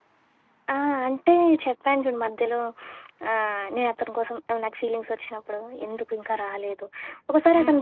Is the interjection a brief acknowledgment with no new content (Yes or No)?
Yes